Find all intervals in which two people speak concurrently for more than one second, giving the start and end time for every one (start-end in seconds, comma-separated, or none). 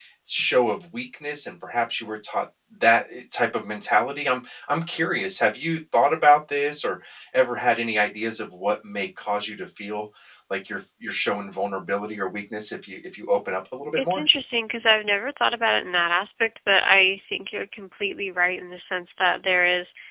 none